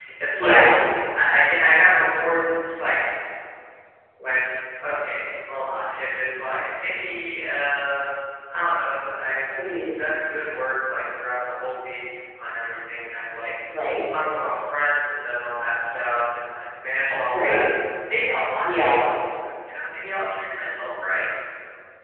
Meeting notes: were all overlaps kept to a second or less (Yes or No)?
Yes